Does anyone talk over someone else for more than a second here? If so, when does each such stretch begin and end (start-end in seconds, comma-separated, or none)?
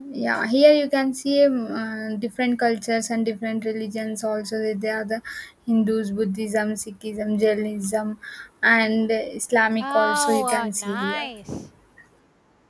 9.8-11.3